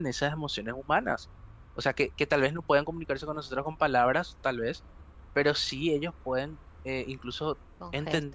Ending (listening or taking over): listening